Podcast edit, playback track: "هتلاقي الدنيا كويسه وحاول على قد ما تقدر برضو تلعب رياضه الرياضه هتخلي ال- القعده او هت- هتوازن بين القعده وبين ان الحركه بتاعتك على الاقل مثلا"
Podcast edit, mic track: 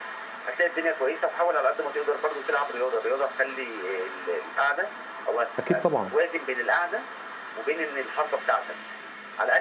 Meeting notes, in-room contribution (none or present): present